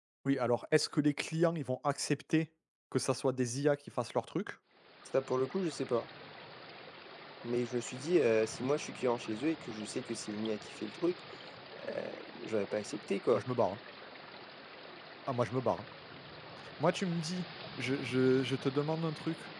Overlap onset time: none

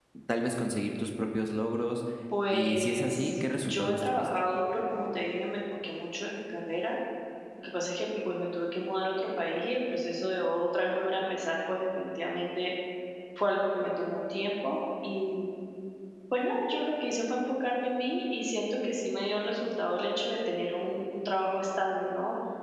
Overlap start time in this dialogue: 3 s

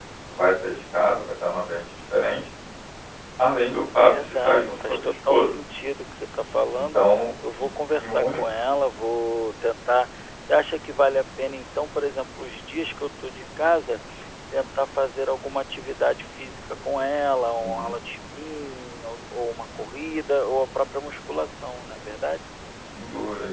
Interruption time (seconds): 4 s

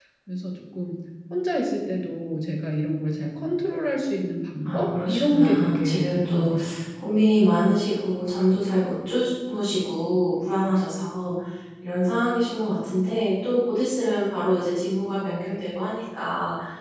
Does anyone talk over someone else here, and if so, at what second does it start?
5 s

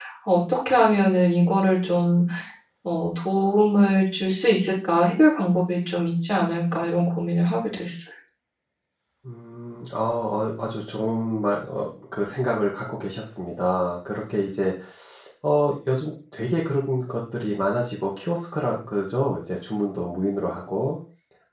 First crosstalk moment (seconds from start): none

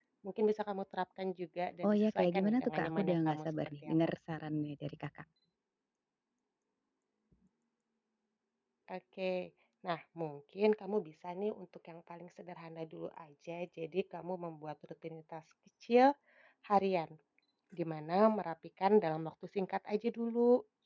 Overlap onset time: 2 s

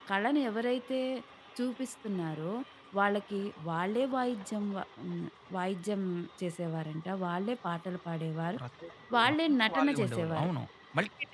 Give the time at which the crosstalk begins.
9 s

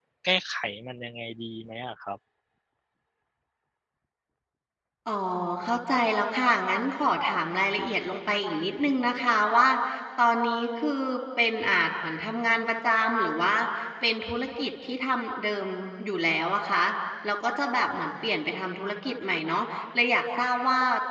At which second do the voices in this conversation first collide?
none

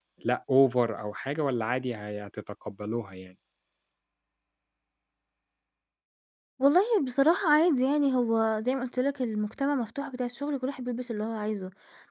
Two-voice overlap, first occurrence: none

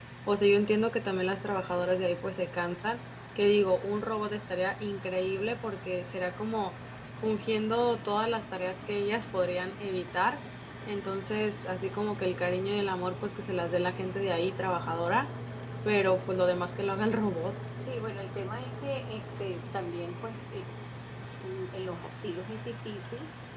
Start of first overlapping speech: none

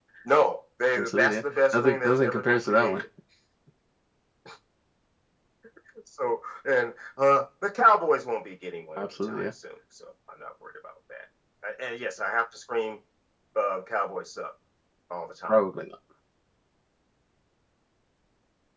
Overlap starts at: 1 s

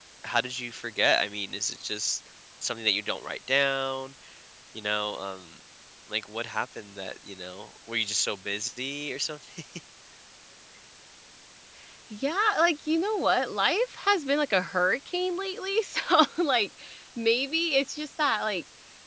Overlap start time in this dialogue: none

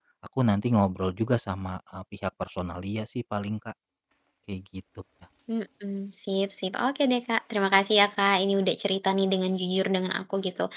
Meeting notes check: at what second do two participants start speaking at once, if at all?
none

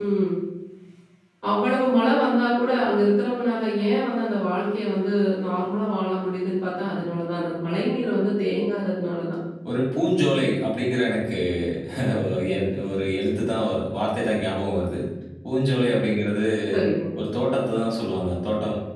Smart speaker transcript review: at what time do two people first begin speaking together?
none

